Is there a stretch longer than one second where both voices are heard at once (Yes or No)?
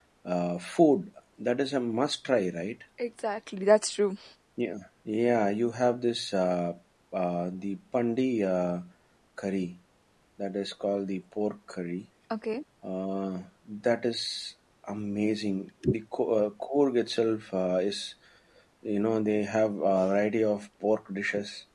No